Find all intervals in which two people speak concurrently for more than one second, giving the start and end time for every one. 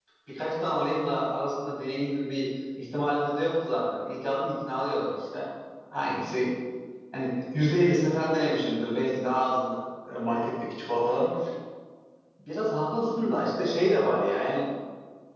none

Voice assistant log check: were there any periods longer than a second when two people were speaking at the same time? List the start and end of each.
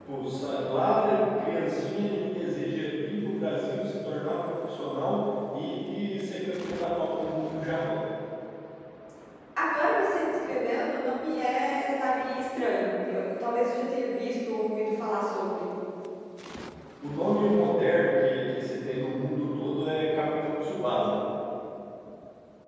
none

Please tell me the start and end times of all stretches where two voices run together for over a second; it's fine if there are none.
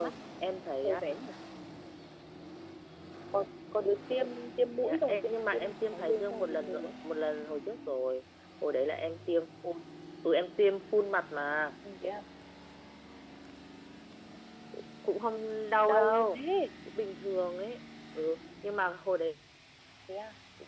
4.8-6.8

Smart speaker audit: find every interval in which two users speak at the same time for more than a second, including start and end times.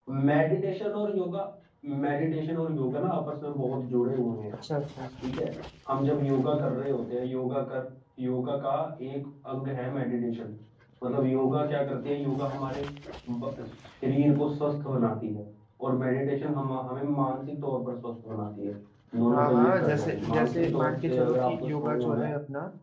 19.3-22.3

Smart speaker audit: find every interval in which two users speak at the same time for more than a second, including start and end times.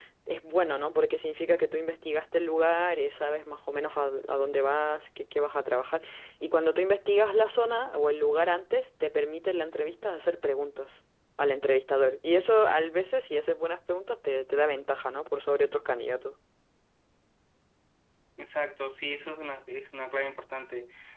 none

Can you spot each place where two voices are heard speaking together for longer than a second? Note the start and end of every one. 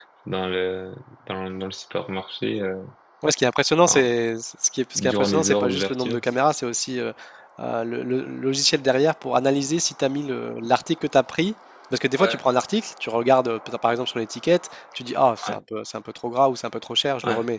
5.0-6.2

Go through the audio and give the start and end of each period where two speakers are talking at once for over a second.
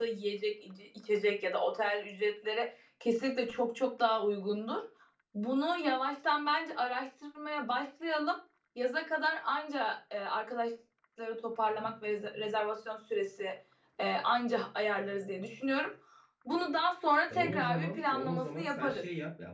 17.3-19.0

